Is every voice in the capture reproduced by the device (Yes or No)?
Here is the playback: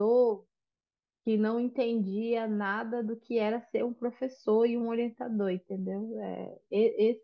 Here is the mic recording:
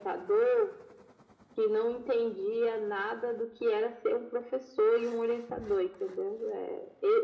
Yes